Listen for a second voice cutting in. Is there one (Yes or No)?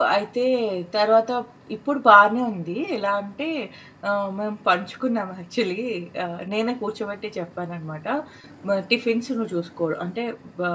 No